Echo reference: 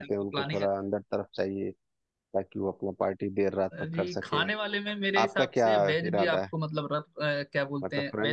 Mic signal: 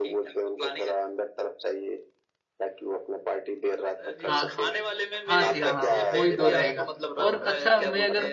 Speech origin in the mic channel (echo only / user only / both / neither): both